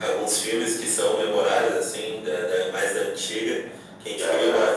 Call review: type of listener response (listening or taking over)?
listening